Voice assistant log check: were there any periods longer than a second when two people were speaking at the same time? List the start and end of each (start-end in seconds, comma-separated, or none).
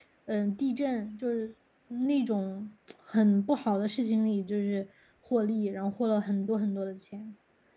none